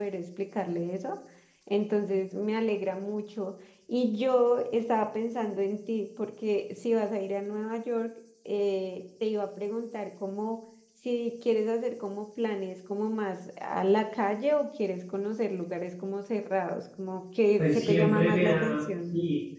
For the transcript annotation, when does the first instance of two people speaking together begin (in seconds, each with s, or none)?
17.6 s